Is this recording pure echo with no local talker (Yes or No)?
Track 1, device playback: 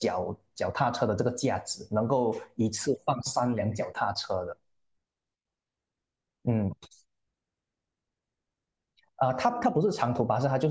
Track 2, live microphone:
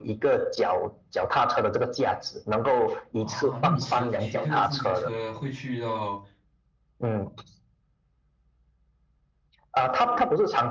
No